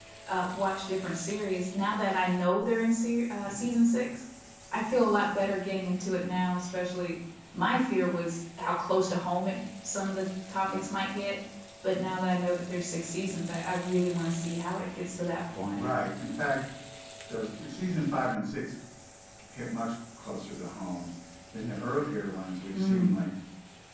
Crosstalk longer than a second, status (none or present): none